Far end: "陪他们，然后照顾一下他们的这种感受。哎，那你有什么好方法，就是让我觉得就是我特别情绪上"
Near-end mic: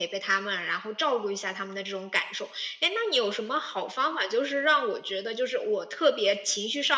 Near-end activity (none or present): none